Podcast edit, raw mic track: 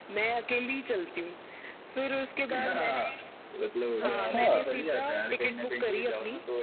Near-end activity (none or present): present